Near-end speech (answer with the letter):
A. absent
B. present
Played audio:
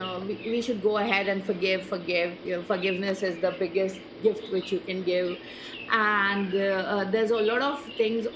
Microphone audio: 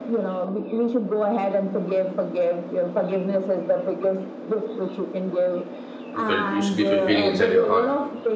B